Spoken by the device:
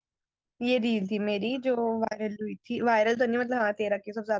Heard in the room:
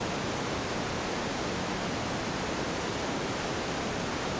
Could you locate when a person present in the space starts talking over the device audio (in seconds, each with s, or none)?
none